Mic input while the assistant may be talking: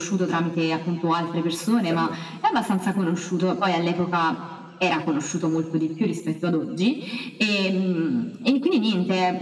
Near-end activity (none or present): present